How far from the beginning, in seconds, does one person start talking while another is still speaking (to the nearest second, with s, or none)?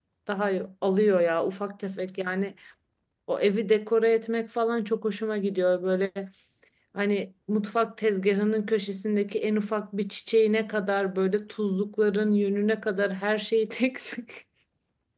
none